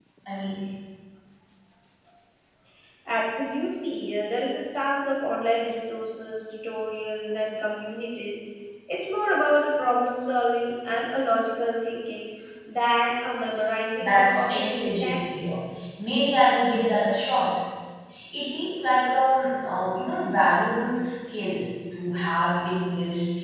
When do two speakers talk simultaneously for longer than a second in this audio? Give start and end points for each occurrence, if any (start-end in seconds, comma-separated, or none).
14.0-15.5